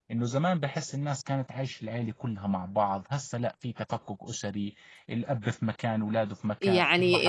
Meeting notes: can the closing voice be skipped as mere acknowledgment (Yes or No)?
No